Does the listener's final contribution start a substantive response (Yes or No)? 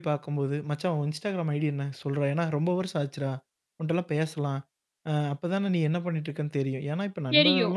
No